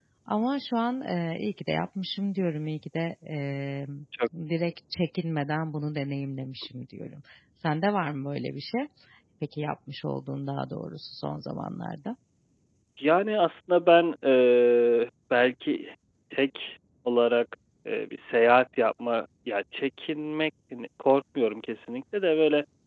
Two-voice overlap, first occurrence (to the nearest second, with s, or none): none